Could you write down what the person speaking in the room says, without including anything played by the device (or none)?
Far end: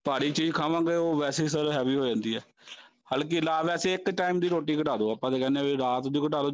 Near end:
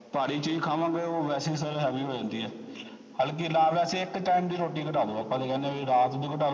none